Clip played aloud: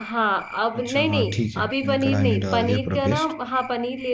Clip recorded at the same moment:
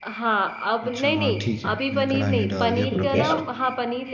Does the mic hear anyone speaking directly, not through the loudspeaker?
Yes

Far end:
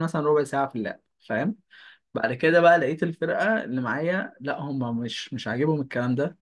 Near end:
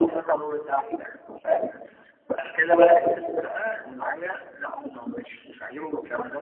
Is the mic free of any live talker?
Yes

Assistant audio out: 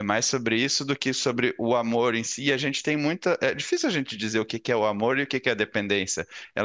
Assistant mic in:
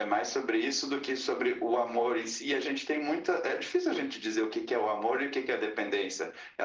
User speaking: No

